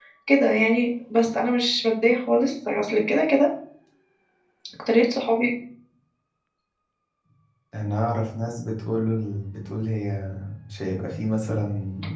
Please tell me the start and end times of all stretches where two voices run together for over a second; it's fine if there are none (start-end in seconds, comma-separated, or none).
none